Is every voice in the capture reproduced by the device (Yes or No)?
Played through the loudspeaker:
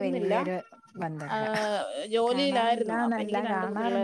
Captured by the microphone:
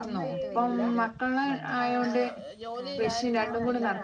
No